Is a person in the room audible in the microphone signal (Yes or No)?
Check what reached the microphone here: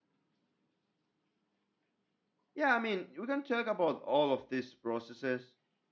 Yes